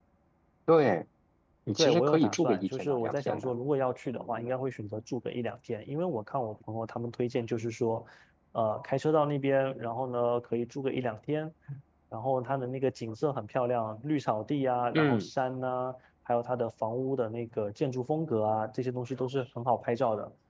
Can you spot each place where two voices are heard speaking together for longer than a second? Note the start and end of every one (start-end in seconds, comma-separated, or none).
1.8-3.5